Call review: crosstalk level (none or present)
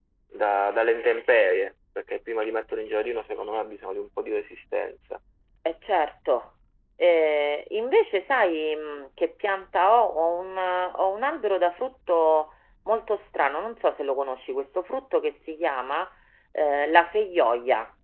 none